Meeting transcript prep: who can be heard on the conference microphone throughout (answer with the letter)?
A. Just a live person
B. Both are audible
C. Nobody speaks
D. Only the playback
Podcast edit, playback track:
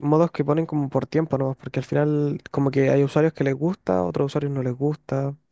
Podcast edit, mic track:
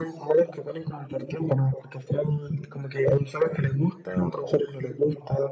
D